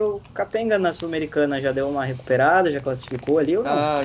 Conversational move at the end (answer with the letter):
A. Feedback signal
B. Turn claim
B